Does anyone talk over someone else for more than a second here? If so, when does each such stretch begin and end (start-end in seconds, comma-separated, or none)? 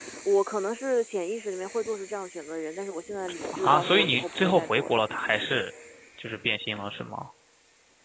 3.5-5.2